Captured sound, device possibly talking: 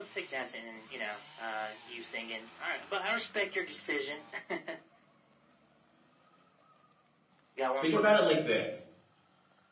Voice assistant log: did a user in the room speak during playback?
Yes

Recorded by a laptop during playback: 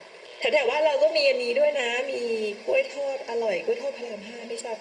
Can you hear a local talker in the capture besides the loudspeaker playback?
No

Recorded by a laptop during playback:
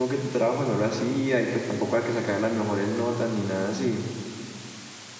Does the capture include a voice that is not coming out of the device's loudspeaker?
Yes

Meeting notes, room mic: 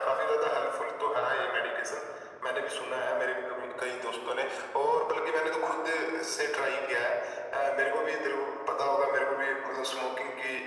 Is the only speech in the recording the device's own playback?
Yes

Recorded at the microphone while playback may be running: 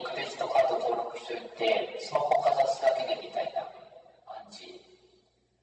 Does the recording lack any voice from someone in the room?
Yes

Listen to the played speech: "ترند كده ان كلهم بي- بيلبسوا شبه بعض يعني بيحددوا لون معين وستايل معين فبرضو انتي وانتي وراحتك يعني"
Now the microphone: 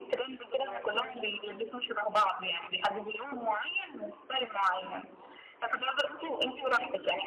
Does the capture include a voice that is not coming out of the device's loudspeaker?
Yes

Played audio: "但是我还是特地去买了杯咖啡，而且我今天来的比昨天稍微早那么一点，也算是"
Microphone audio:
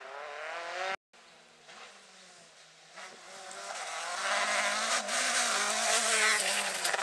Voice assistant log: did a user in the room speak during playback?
No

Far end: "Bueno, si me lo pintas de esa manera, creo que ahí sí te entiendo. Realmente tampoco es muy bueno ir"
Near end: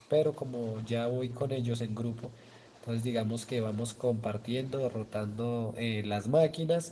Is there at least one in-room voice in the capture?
Yes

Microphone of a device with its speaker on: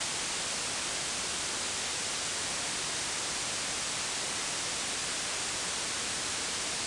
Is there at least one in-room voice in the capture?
No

